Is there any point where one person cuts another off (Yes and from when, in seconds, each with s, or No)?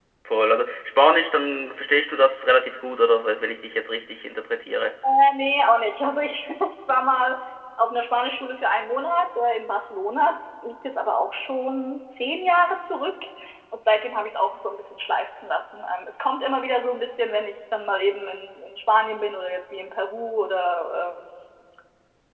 No